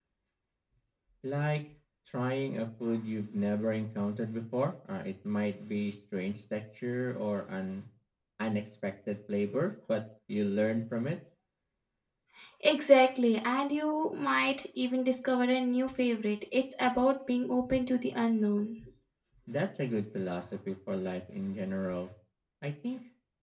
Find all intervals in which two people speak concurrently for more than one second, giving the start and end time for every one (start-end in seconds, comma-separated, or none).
none